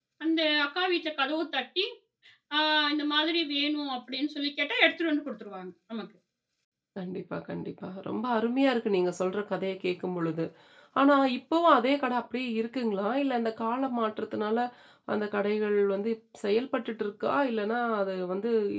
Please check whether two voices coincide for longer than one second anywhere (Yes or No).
No